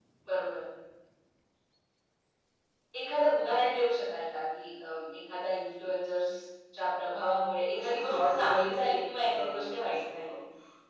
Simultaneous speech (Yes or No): Yes